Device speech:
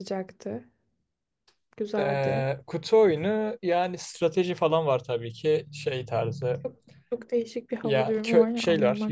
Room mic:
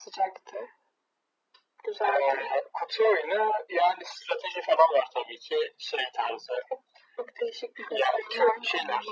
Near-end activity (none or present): none